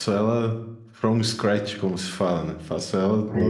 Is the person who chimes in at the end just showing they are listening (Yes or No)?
Yes